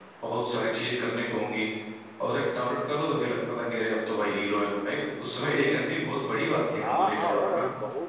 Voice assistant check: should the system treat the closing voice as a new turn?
Yes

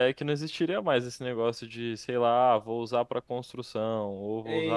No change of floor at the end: No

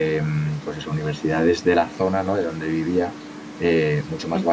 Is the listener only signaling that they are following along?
Yes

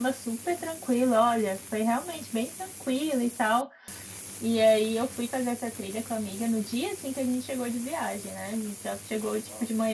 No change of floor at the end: Yes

